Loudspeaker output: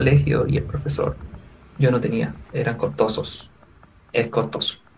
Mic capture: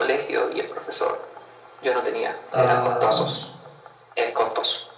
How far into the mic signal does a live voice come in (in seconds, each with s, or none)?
2.5 s